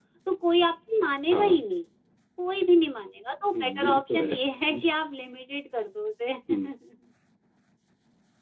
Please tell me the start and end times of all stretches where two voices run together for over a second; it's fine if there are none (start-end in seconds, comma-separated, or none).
3.5-4.8